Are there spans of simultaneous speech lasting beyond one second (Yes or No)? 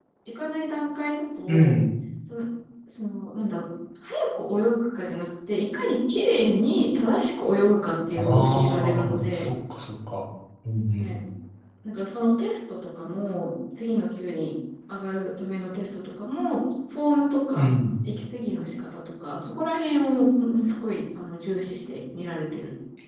Yes